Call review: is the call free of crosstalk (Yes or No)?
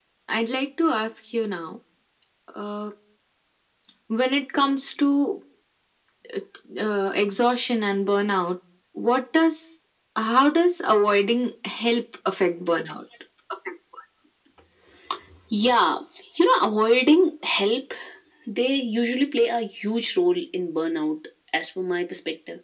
Yes